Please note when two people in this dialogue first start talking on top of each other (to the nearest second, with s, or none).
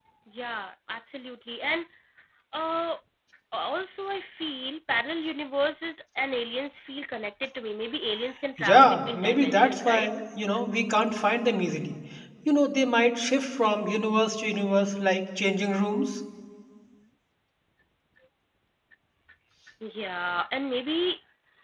9 s